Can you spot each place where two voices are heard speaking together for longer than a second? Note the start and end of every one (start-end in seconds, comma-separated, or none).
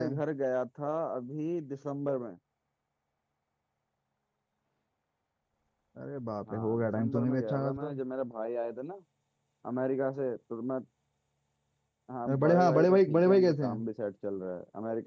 6.5-7.9, 12.3-13.8